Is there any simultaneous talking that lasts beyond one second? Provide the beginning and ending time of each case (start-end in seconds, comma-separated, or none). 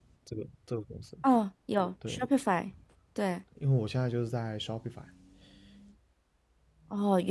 none